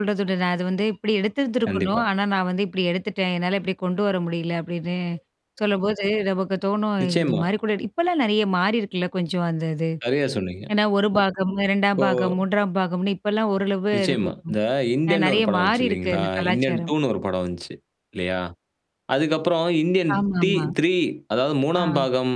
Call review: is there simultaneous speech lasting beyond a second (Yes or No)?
Yes